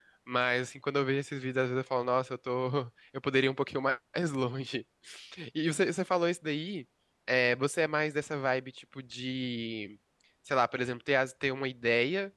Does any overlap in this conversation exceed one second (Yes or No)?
No